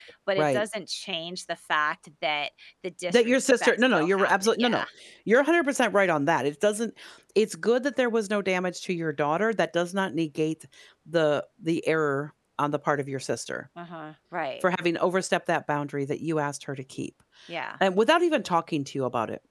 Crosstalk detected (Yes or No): Yes